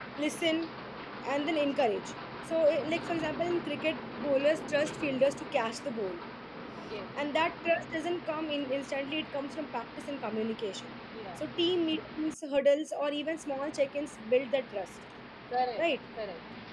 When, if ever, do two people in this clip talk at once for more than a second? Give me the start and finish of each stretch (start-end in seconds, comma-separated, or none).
none